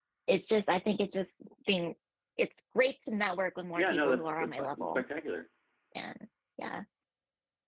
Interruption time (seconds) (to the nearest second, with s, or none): 4 s